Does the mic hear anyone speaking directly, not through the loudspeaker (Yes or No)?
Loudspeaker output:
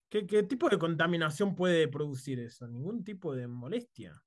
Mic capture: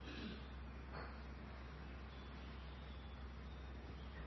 No